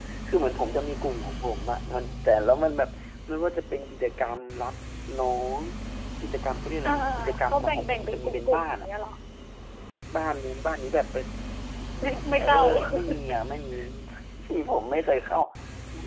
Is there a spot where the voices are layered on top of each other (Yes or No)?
Yes